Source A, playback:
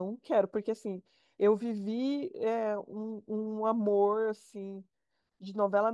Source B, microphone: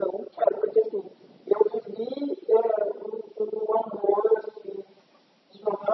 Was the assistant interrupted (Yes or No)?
No